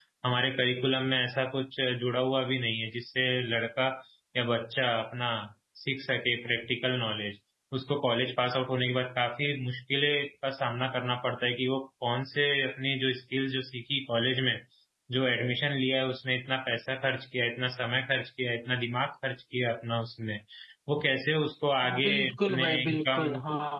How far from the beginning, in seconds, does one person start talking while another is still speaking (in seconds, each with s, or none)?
21.8 s